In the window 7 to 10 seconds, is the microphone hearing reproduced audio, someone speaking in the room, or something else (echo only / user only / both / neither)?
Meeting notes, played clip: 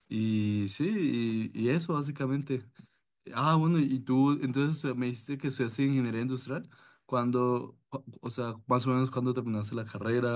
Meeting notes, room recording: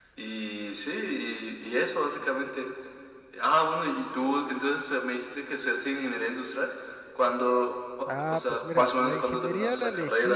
both